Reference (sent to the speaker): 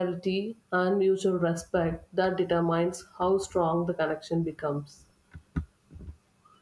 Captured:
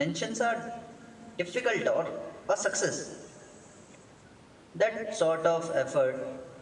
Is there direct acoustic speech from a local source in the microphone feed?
Yes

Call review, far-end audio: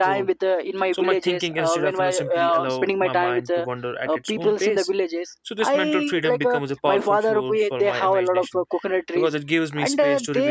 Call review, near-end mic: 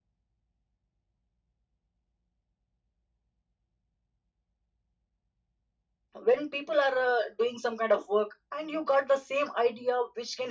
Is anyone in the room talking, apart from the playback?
Yes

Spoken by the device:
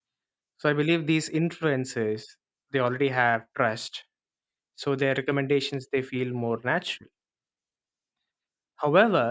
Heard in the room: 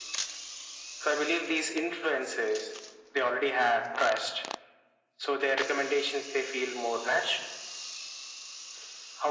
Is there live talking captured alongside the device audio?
No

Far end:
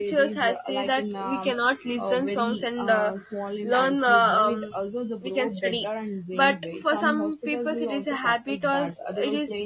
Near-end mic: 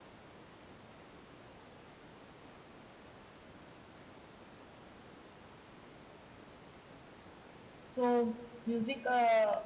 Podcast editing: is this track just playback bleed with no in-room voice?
No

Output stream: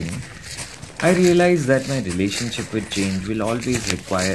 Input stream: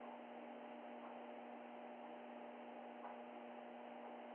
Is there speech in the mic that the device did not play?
No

